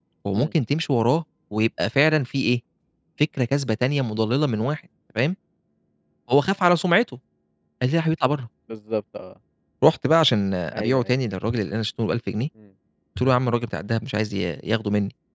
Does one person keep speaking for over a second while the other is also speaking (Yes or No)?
No